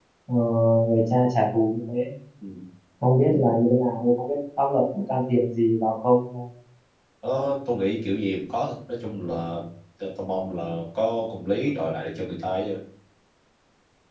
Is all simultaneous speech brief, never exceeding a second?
Yes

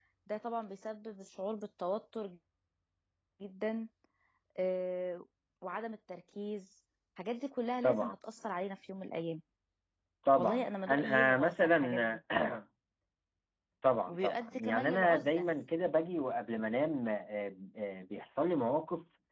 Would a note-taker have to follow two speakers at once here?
Yes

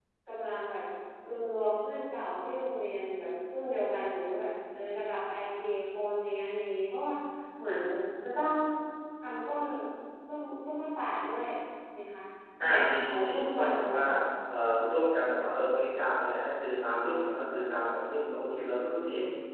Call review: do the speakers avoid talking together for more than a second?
No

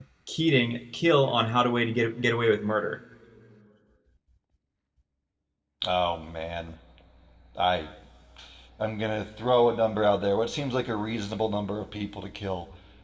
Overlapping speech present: No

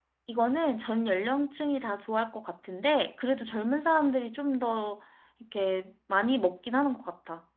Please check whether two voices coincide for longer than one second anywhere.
No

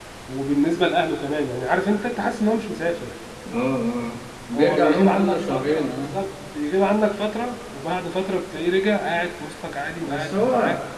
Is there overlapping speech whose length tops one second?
Yes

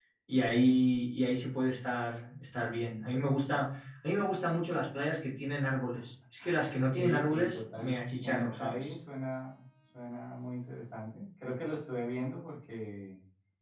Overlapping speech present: Yes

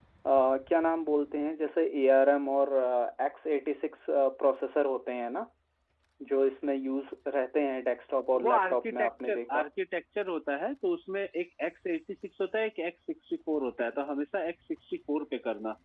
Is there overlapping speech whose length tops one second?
Yes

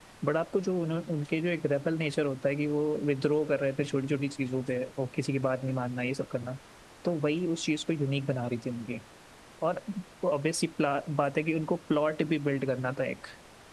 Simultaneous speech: No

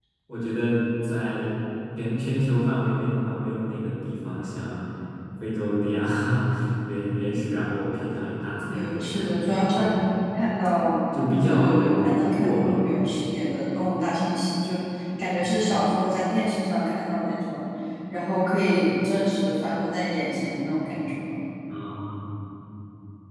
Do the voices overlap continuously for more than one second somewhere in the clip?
Yes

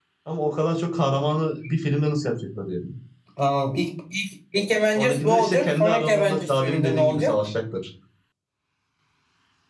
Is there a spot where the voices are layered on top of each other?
Yes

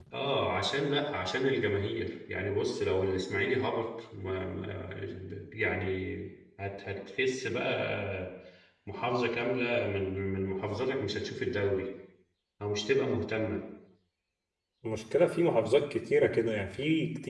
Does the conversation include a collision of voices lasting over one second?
No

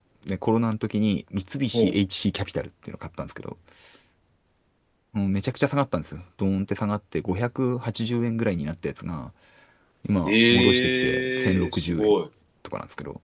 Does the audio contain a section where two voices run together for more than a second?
Yes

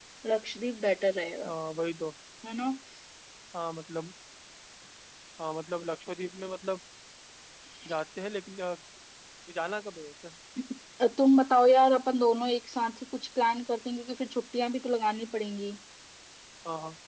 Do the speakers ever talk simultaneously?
No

